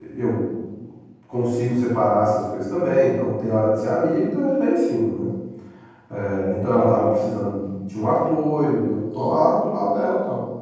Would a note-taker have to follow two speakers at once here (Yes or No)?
No